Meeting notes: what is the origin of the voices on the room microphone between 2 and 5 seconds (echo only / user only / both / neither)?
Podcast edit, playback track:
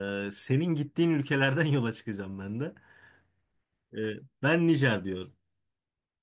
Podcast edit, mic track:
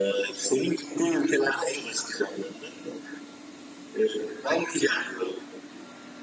echo only